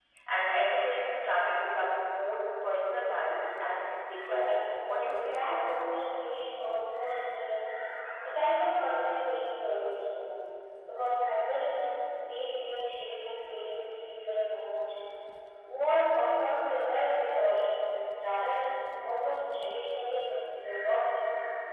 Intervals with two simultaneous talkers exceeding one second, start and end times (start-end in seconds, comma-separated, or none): 4.2-5.4